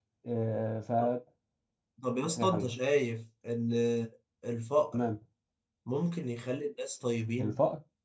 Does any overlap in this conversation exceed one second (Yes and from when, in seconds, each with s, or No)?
No